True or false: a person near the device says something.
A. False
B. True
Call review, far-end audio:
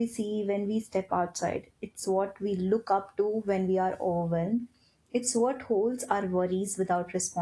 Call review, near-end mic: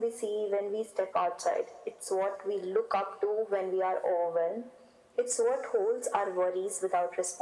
A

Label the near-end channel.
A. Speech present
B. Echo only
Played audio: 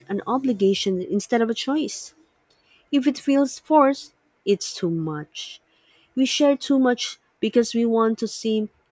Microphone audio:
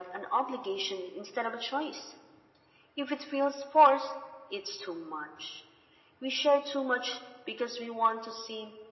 B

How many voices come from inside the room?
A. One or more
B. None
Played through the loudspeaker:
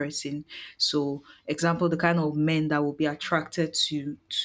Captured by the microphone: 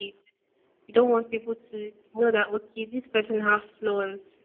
A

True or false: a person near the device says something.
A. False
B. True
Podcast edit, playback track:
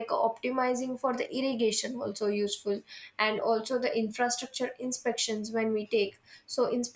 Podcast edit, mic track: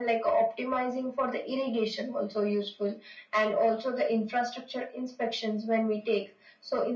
A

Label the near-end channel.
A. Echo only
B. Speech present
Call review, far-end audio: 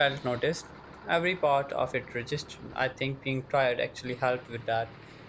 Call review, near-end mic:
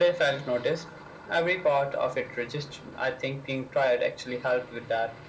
A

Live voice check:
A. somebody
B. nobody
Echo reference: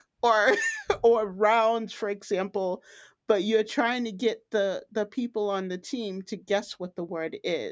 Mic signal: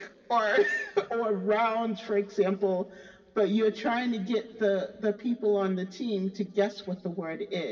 B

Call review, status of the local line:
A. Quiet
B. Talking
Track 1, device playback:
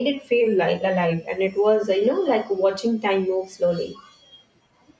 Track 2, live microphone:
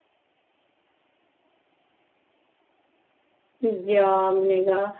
B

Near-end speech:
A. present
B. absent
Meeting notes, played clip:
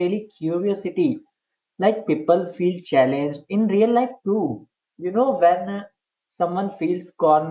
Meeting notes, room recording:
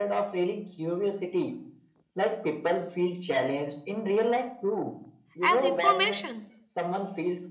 A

